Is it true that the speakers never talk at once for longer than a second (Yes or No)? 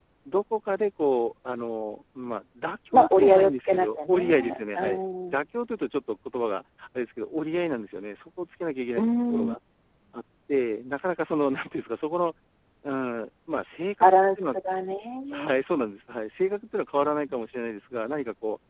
No